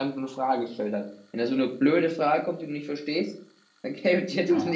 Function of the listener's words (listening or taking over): taking over